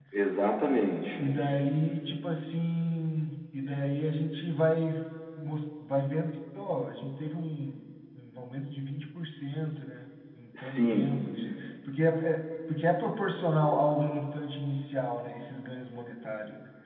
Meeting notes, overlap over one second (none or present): none